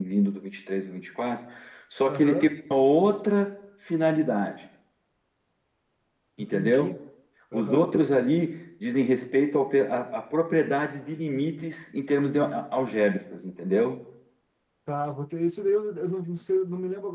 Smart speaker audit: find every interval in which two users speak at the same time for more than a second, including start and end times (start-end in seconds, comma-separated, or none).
none